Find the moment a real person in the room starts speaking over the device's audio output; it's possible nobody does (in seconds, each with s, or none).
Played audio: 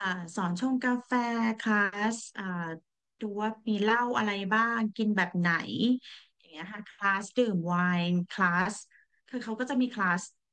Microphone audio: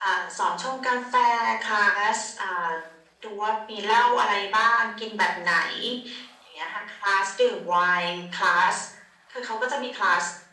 none